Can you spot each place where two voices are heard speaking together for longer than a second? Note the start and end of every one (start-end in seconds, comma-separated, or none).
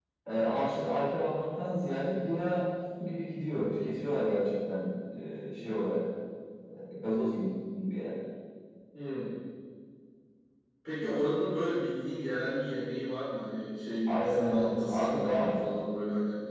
14.1-15.5